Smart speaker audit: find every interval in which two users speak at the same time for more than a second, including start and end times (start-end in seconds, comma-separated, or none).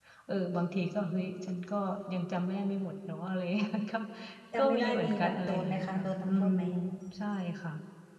4.5-6.5